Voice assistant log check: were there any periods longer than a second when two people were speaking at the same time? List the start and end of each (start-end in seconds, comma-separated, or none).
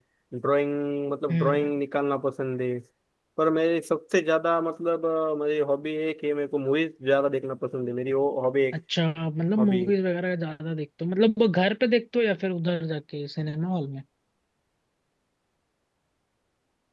none